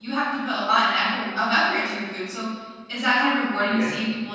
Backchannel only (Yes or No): Yes